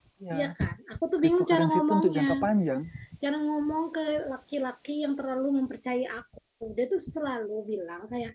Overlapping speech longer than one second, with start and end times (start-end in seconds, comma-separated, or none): 1.2-2.4